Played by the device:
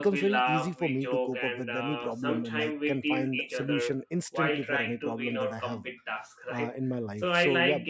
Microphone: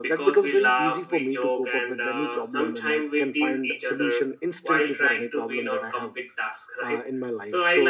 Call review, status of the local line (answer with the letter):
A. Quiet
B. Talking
A